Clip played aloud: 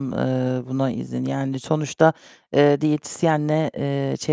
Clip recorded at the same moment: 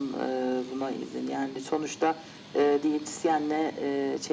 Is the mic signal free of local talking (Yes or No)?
Yes